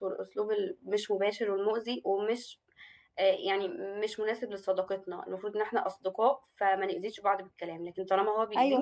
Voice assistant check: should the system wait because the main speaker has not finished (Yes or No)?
Yes